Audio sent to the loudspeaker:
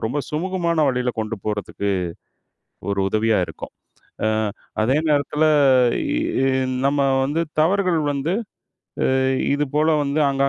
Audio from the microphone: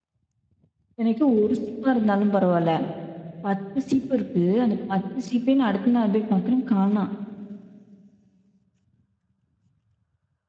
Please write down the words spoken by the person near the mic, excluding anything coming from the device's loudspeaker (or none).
எனக்கு 1 சீப்பா இருந்தாலும் பரவால்ல. 10 சீப்பு இருக்கு. அந்த 10 சீப்பையும் நான் அடுத்த நாள் போய் பார்க்குறேன் காணாம்.